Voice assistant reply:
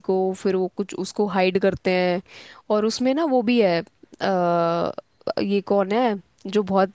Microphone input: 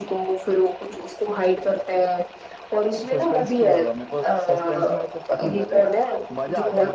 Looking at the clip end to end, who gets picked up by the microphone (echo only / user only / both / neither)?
both